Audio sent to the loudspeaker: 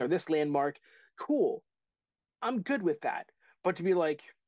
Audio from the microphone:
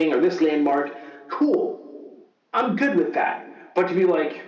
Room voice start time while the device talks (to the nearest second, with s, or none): none